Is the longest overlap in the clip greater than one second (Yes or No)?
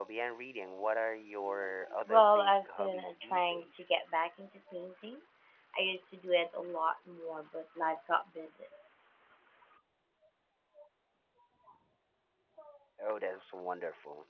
Yes